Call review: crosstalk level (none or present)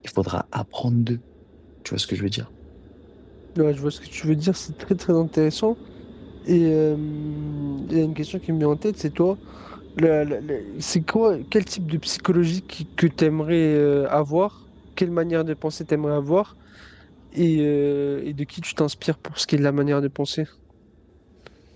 none